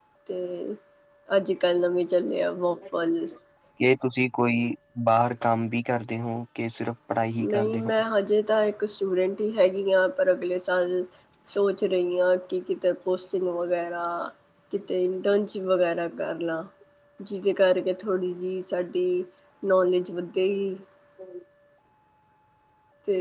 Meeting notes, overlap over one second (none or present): none